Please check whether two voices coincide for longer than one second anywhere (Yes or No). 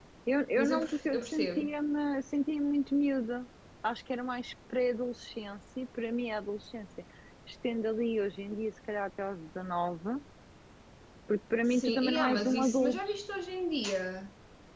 Yes